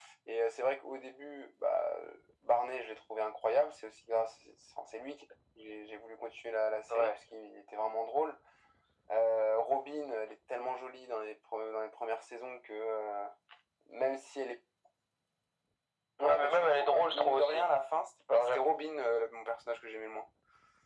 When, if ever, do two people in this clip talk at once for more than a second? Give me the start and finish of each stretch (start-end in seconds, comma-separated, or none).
16.2-17.6